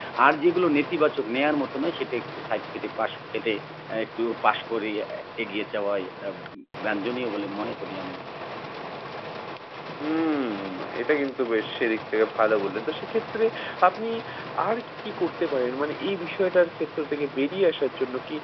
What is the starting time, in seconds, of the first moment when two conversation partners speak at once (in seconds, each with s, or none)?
none